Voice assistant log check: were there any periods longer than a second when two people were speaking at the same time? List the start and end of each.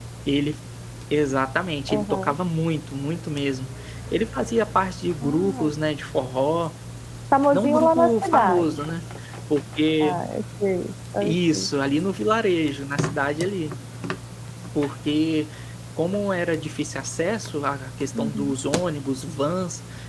7.5-8.8

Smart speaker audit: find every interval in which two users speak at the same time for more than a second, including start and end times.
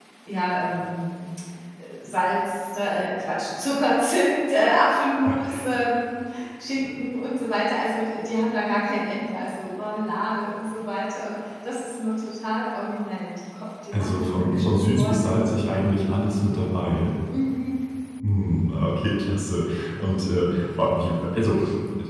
13.9-15.3

